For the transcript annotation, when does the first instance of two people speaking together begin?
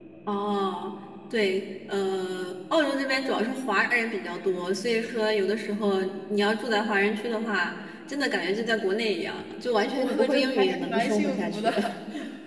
10.0 s

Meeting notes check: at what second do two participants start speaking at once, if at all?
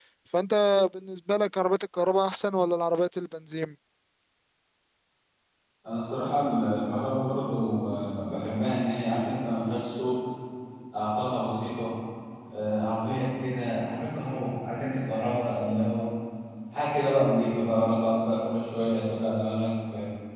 none

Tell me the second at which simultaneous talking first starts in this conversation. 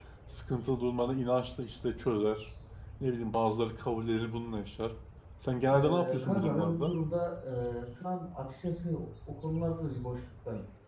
5.7 s

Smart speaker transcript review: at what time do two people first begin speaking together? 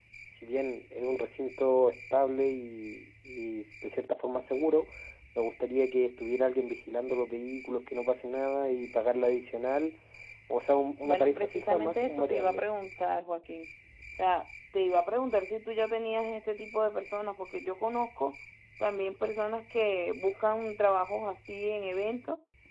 11.0 s

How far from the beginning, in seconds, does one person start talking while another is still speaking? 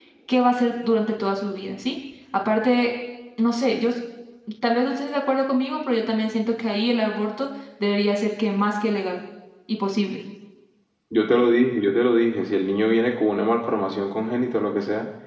none

